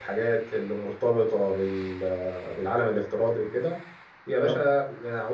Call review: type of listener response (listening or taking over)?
listening